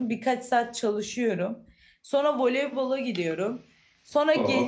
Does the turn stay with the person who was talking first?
Yes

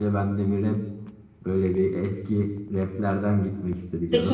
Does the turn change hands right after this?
Yes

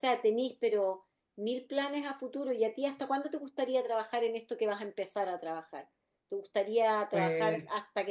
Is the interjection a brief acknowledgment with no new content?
Yes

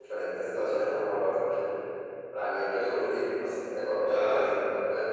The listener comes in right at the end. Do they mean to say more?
No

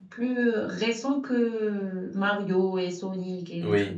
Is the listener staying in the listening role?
No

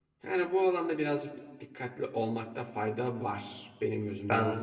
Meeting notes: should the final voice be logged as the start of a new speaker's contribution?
Yes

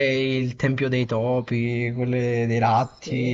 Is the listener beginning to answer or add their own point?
No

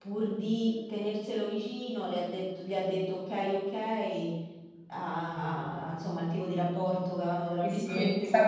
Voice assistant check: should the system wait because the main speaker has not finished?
No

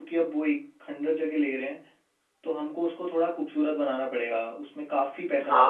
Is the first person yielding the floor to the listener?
Yes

